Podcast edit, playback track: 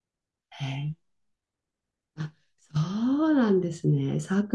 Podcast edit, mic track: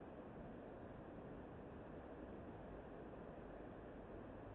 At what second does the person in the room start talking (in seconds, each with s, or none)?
none